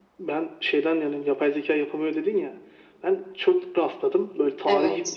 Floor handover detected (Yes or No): No